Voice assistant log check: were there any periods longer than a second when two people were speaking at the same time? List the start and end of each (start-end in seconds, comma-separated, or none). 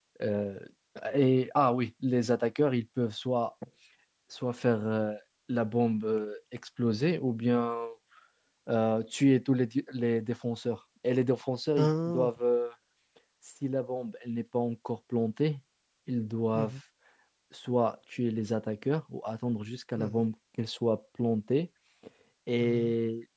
none